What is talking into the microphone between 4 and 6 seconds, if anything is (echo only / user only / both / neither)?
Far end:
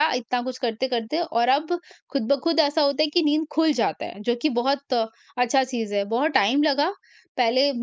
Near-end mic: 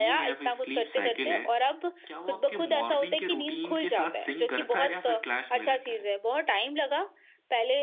both